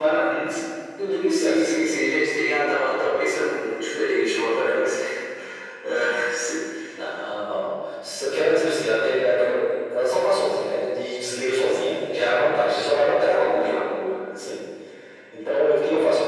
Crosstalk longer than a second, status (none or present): none